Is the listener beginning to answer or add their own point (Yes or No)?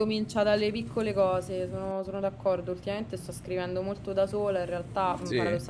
No